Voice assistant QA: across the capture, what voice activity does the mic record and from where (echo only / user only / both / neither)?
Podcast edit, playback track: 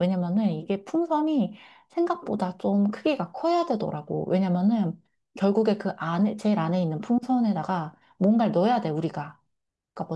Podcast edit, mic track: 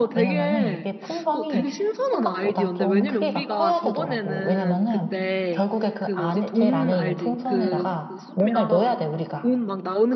both